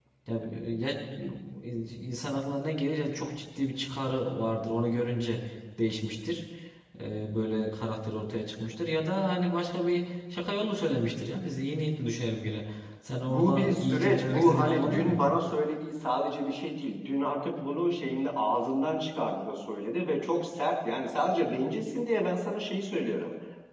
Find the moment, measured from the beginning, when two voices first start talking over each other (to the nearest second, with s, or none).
13 s